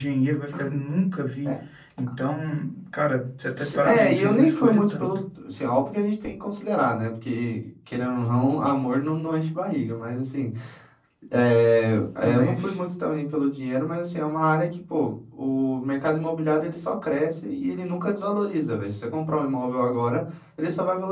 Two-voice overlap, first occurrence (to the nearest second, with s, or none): 4 s